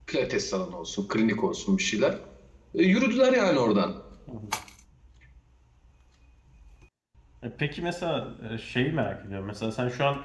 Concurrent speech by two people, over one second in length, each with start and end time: none

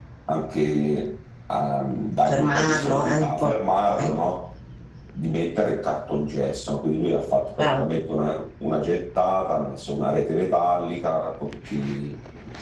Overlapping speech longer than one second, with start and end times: 2.3-3.5

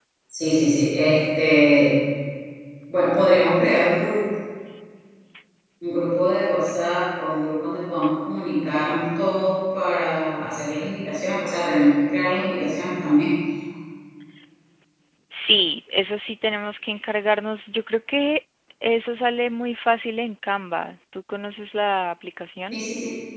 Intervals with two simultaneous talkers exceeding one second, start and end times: none

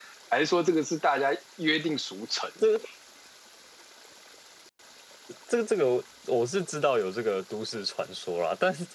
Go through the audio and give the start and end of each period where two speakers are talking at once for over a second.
none

